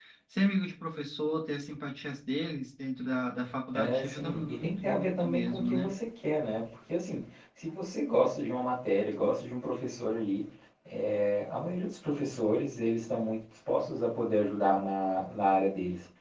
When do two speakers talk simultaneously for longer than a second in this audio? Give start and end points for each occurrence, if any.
3.7-5.9

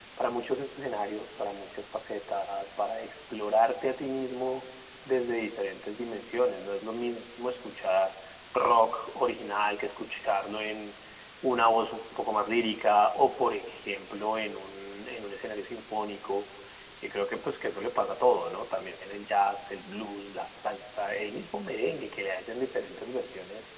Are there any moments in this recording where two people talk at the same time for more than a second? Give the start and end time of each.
none

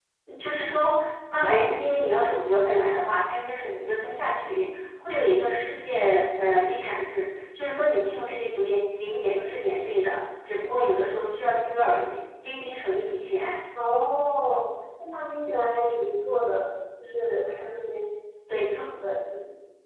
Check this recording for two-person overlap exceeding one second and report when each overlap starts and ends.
none

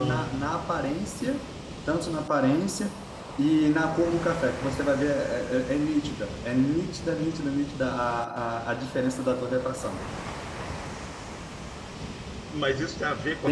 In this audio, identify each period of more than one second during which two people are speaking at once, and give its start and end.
none

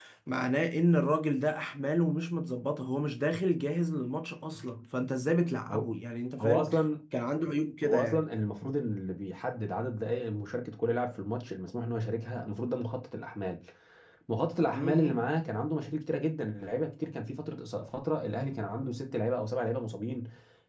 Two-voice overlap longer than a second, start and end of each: none

